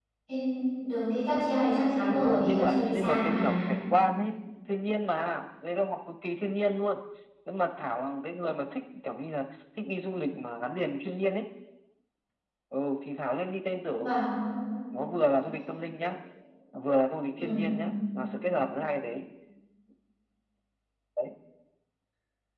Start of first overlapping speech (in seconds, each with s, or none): 2.1 s